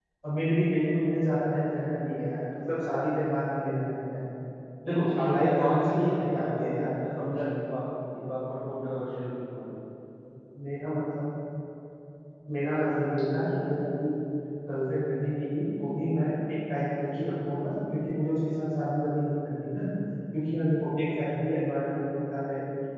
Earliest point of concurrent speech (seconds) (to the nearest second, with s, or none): 5 s